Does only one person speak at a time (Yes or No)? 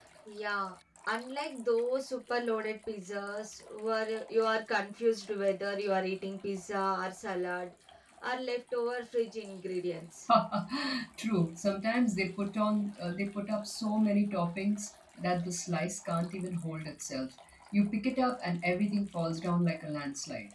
Yes